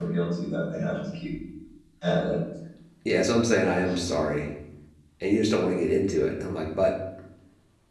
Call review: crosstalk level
none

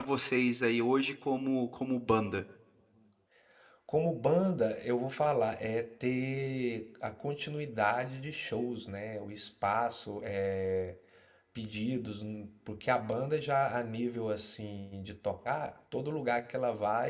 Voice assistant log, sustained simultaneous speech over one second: none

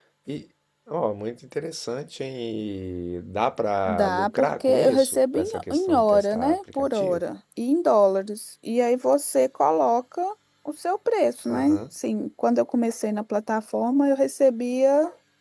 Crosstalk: present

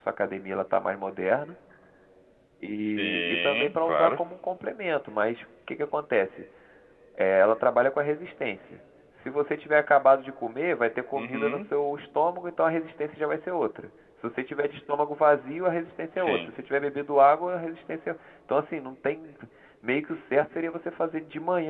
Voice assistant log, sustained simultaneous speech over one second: present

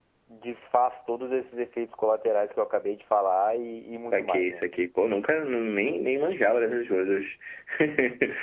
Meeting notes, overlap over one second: none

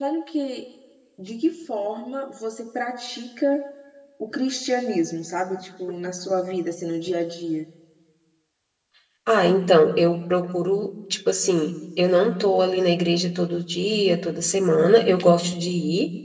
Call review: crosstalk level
none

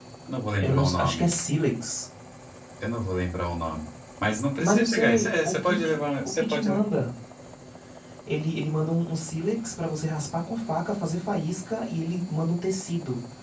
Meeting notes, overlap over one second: present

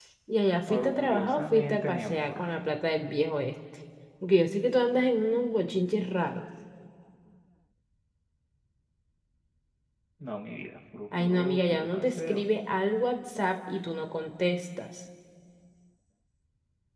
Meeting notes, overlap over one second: present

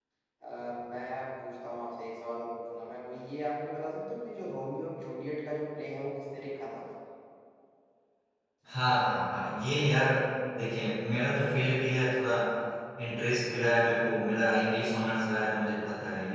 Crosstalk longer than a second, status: none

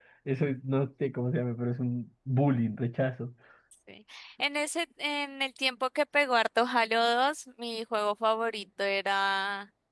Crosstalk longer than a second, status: none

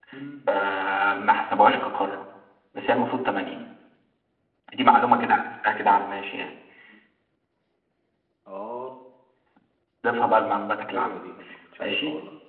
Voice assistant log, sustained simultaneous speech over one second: none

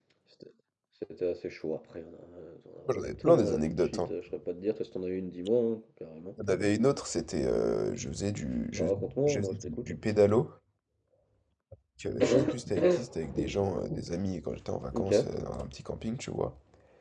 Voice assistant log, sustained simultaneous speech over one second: present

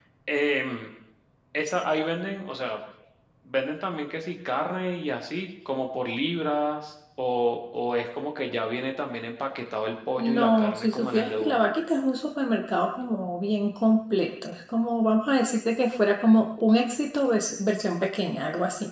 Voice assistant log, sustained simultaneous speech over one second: present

